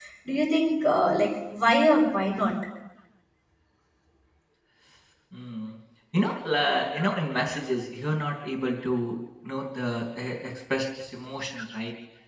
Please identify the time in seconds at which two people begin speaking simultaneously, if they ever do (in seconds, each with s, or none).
none